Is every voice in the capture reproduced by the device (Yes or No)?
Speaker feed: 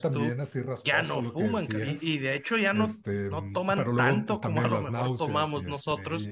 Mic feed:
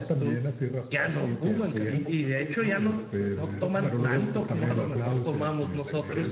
No